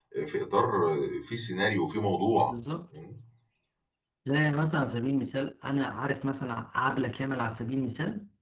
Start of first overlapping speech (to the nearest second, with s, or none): none